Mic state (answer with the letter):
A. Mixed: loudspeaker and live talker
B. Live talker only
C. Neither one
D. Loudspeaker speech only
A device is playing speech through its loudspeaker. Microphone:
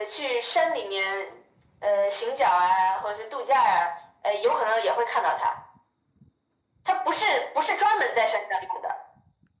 D